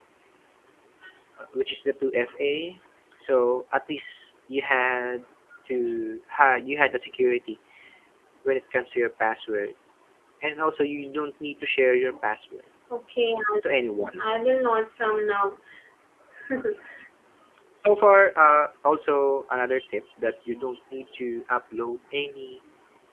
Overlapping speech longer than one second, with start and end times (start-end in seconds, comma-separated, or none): none